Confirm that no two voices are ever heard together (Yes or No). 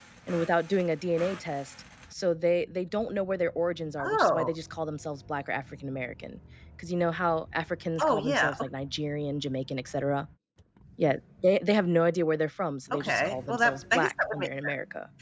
No